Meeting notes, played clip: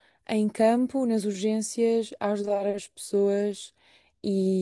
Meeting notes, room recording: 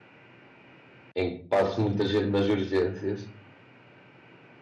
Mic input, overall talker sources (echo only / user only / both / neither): user only